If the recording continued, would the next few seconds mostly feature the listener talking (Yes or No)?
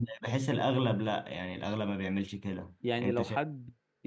Yes